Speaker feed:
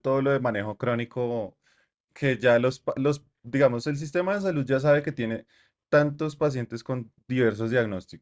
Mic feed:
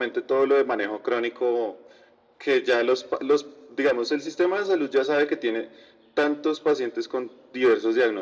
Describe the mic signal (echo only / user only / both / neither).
echo only